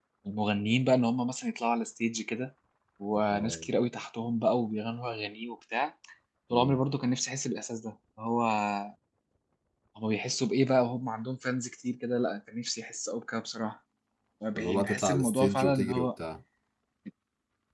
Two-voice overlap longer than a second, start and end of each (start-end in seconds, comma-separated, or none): 14.6-16.1